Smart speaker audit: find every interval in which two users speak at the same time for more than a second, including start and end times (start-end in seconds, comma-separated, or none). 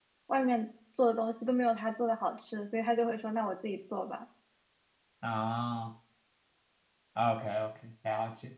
none